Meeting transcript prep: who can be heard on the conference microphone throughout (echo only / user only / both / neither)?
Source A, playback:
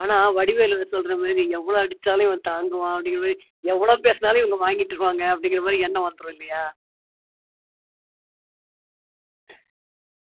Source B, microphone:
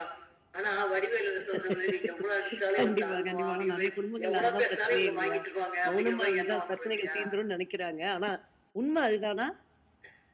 both